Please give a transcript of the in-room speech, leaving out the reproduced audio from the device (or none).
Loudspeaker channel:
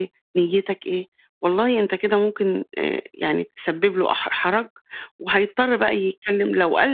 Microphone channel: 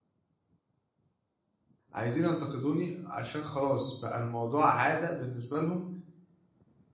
عايزين ينتقدوني عشان خلاص بقى الموضوع عادة بالنسبة لهم